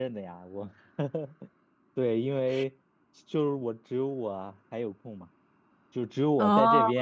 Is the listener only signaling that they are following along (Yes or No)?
Yes